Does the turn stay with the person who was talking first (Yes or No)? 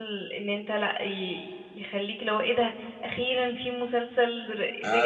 No